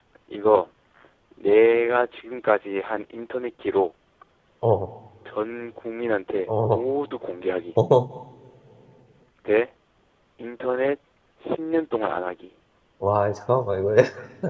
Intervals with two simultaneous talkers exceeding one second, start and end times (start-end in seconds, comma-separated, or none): none